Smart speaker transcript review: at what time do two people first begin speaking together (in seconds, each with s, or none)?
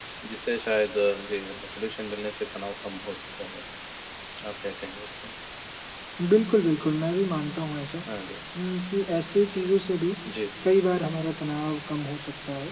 none